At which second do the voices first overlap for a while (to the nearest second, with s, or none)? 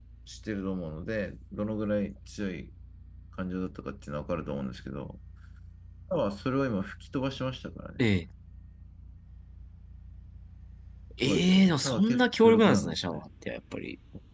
11 s